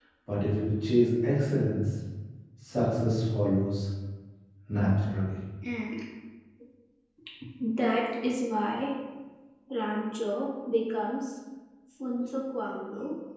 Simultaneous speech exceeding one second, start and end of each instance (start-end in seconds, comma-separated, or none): none